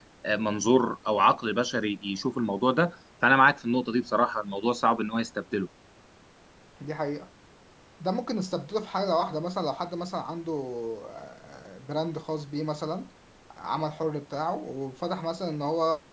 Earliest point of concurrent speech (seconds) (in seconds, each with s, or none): none